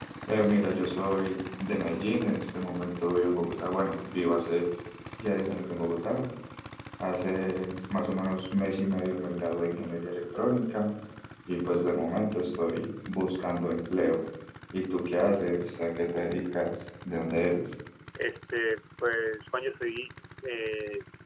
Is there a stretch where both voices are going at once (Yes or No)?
No